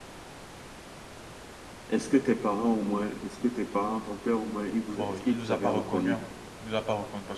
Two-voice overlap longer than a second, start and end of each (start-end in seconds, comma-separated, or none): 4.9-6.2